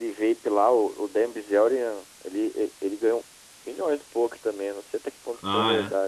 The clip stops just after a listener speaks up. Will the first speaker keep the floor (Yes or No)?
No